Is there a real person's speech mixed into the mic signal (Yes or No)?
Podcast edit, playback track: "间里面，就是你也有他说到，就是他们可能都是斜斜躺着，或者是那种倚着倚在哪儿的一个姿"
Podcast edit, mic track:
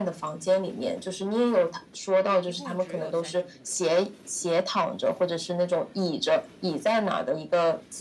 Yes